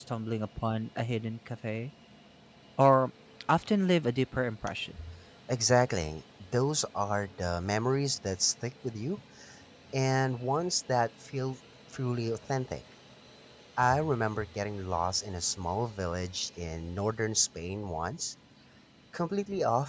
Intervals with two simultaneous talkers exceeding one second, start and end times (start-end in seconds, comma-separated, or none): none